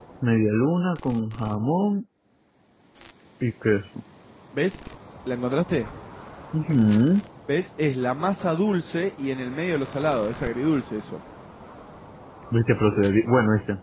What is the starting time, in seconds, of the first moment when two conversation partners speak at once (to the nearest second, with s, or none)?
none